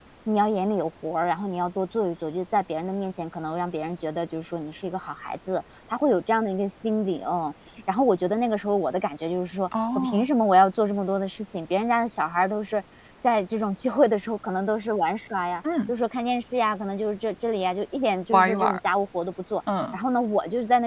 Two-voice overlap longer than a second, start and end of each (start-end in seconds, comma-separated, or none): none